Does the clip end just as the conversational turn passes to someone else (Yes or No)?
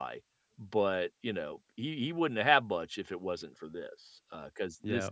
Yes